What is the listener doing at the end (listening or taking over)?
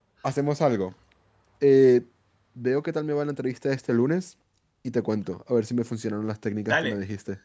taking over